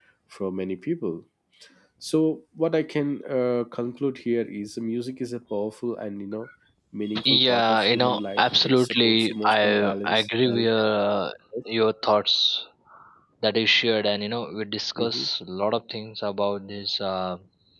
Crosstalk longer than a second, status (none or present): present